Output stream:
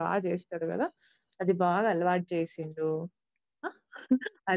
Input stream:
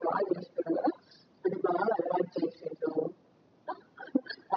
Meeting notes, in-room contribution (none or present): none